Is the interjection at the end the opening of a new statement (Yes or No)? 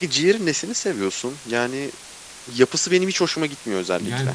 Yes